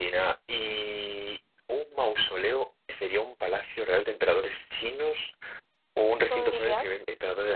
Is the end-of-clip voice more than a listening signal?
No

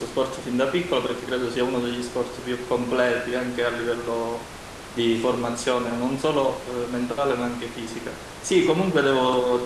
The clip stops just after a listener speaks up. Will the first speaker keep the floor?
Yes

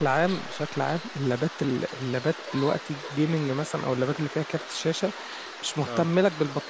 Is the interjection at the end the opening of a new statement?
No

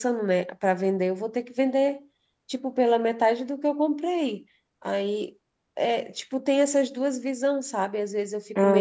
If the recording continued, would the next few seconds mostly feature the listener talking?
No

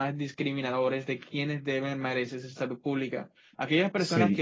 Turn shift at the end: No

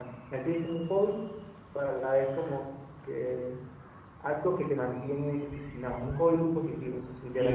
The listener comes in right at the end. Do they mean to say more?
Yes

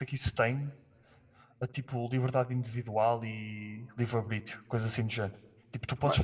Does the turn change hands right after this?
No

